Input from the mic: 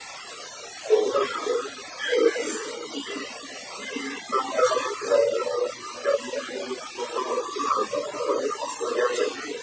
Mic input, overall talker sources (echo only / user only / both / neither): echo only